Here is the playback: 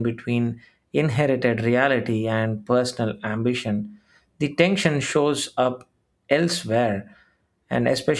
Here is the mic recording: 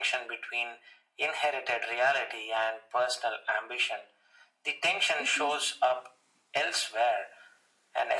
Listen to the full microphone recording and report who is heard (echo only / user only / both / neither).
both